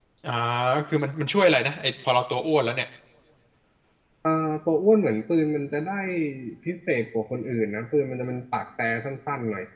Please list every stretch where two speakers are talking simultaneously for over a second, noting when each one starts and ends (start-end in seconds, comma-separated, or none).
none